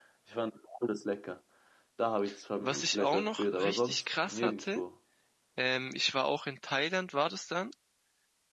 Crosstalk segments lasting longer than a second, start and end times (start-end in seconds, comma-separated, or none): 2.9-4.8